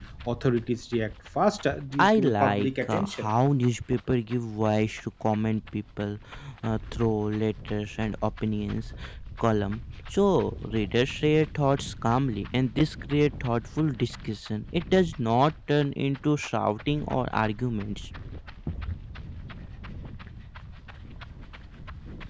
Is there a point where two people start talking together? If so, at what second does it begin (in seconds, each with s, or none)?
2.0 s